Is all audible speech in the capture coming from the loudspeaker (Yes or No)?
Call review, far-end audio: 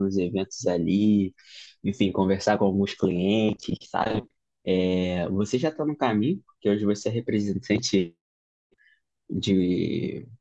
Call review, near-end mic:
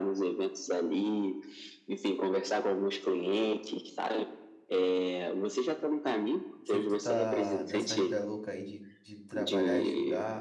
No